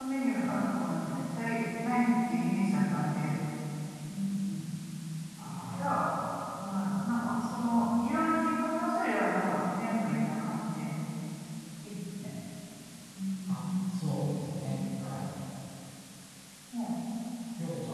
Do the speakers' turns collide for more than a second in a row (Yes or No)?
No